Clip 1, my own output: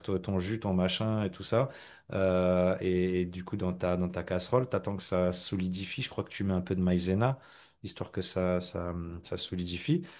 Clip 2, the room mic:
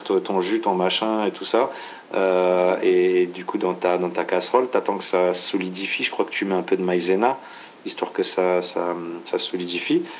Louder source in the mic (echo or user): echo